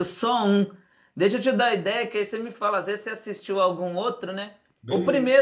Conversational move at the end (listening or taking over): listening